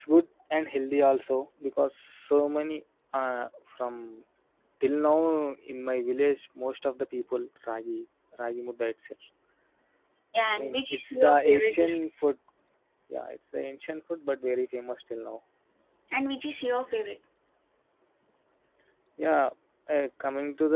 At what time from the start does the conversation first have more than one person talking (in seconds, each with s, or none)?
10.6 s